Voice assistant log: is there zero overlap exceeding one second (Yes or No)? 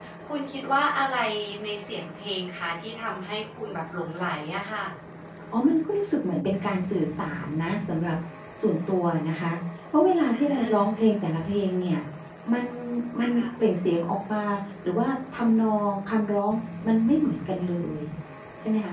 Yes